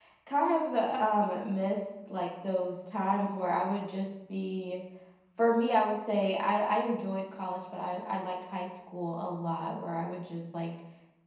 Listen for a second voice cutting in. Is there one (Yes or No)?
No